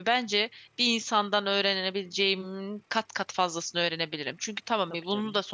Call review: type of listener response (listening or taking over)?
listening